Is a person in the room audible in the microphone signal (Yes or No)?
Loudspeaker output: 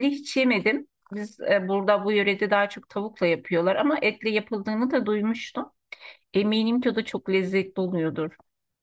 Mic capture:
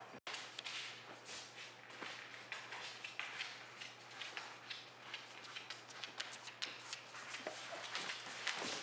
No